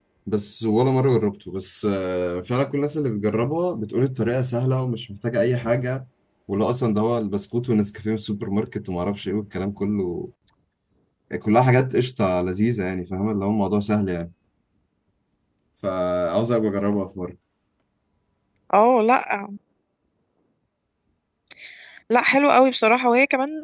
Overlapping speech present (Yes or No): No